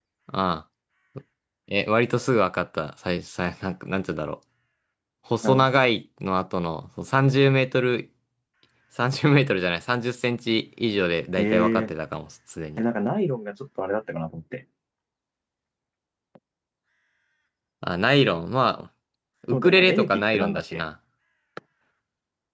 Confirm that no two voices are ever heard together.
No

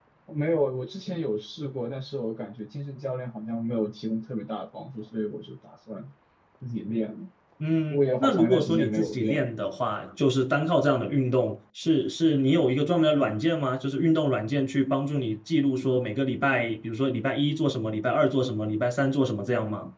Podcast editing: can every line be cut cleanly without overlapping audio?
No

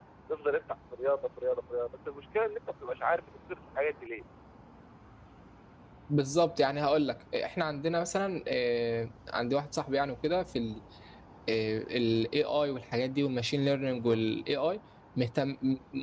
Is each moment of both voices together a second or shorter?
Yes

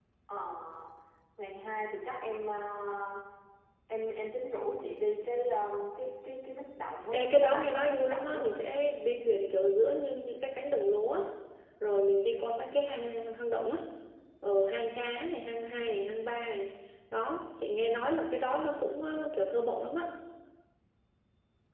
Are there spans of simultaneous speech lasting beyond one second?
Yes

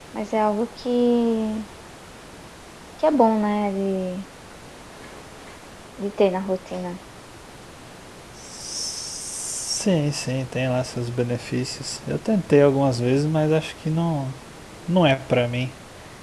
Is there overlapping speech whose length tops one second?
No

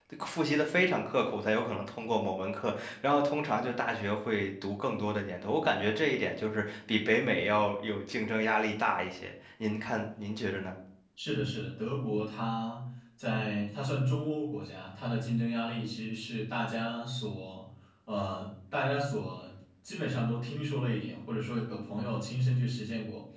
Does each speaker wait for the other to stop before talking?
Yes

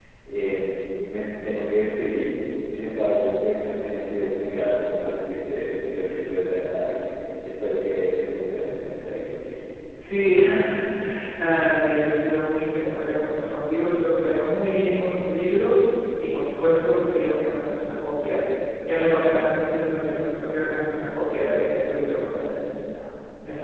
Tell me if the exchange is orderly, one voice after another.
Yes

